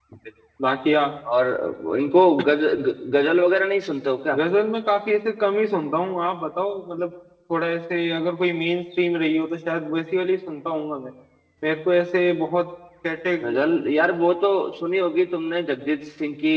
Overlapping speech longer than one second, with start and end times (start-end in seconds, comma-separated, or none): none